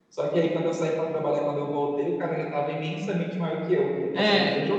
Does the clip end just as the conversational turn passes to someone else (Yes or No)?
Yes